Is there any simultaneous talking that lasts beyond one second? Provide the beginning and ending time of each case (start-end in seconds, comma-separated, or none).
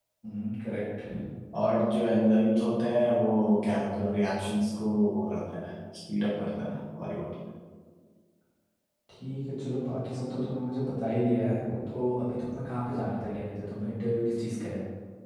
none